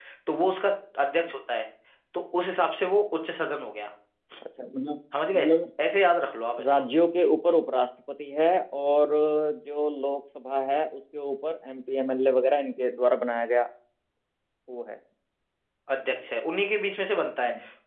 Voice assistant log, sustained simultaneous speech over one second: none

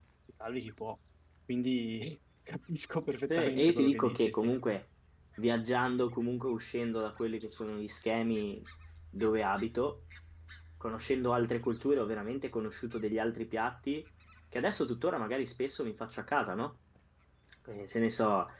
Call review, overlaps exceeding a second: present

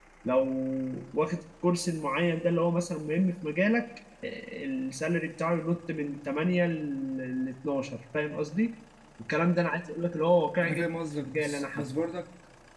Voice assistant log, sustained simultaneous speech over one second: present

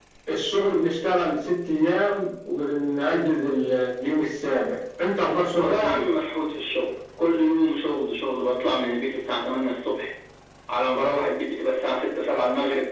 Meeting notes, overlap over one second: none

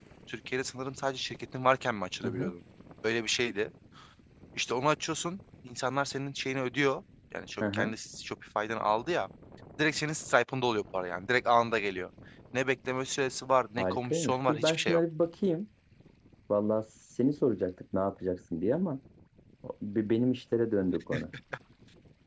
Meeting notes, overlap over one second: present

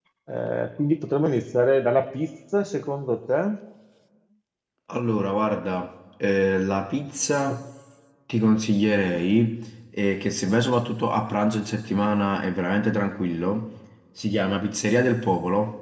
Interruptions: none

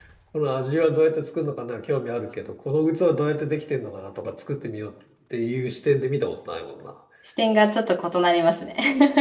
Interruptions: none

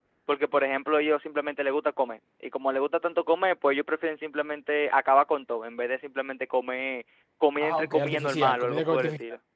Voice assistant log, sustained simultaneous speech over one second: present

